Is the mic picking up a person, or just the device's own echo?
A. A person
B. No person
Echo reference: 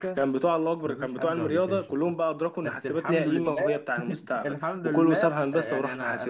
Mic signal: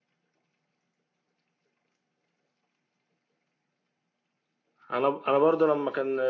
A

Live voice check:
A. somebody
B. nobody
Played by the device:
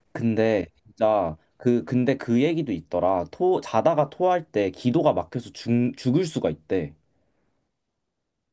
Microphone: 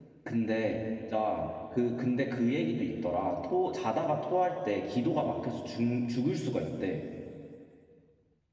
B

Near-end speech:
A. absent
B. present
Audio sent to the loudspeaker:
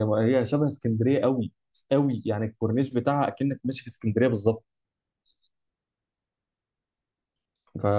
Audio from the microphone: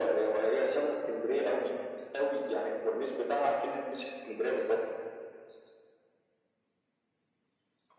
A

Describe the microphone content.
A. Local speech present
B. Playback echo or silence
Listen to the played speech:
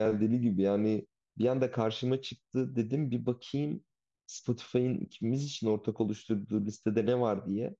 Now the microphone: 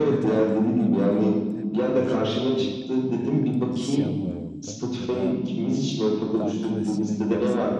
A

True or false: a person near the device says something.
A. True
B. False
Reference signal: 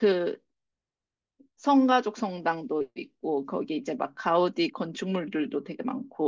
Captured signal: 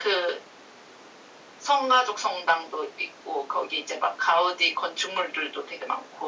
B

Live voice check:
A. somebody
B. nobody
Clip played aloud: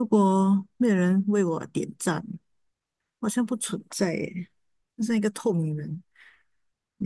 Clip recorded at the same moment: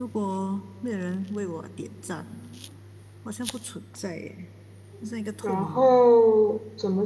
A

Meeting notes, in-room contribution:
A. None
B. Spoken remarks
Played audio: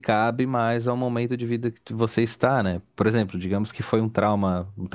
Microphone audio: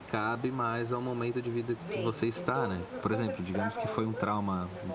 B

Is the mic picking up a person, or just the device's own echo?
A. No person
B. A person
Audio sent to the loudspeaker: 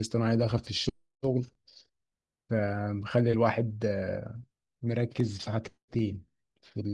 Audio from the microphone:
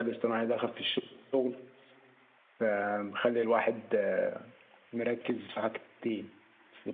A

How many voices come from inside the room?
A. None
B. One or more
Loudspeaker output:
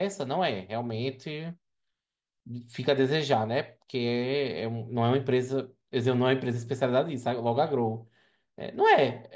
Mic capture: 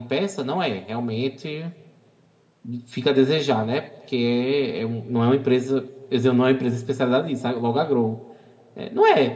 A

